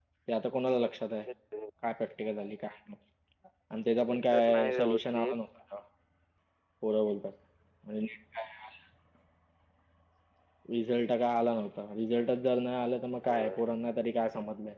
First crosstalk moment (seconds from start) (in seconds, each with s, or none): 4.1 s